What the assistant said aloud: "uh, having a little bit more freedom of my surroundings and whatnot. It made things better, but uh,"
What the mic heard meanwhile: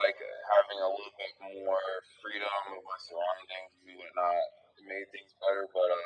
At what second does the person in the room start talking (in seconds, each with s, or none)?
none